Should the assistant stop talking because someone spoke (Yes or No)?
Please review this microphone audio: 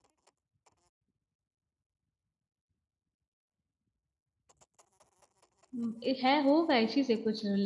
Yes